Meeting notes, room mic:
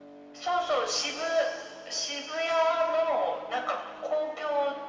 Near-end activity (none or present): none